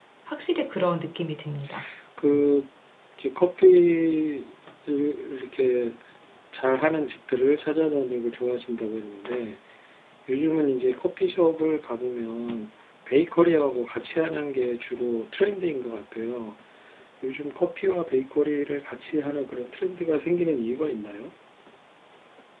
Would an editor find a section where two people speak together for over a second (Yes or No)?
No